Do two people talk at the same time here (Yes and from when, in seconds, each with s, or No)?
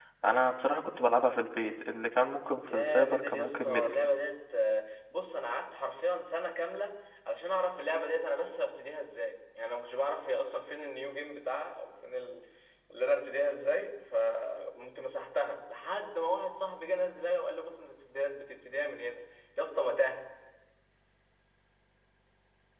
Yes, from 2.7 s